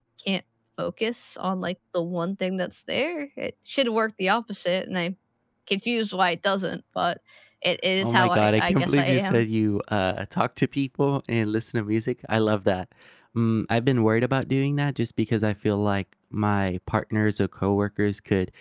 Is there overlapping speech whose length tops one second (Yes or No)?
Yes